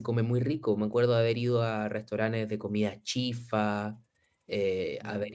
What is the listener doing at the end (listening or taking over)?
listening